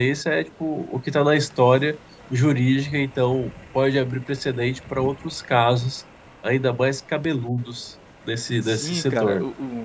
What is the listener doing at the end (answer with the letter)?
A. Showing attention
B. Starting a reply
B